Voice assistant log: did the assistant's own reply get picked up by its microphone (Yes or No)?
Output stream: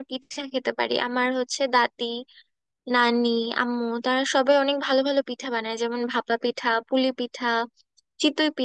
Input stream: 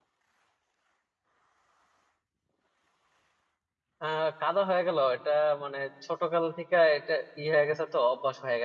No